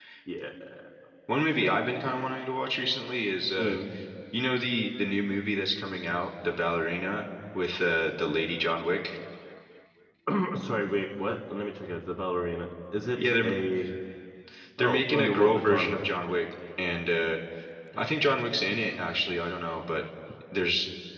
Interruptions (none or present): present